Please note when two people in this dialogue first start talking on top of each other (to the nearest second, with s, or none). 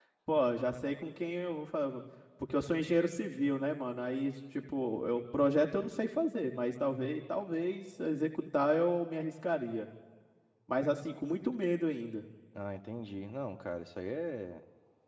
none